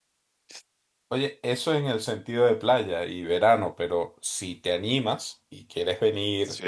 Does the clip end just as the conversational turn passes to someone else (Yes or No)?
No